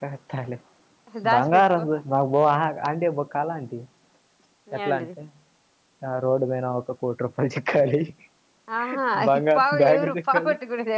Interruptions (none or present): present